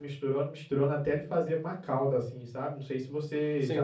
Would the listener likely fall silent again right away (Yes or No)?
No